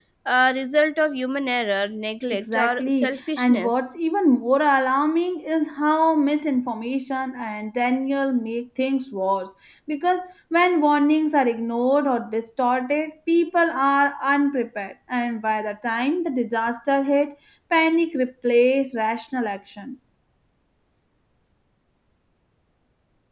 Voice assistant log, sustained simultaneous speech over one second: present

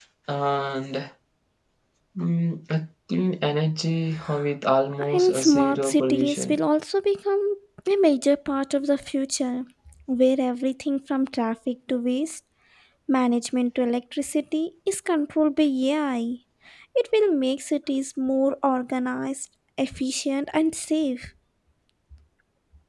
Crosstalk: present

